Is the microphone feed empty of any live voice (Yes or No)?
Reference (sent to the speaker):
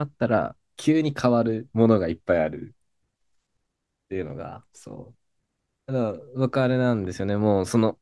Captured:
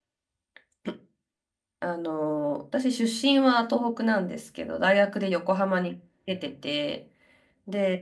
No